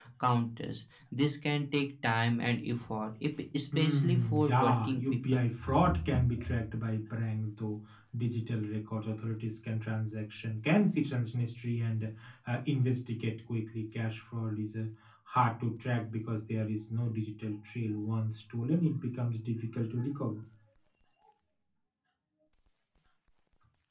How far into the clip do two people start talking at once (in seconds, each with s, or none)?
3.7 s